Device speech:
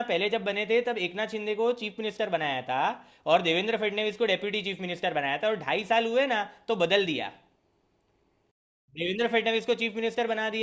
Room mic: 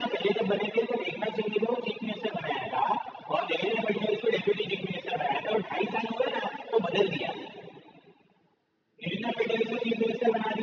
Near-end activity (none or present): none